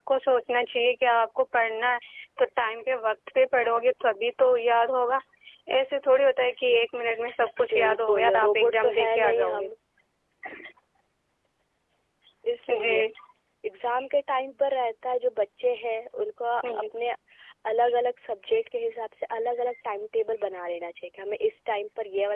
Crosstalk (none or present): present